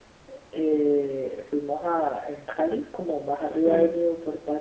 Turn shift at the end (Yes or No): No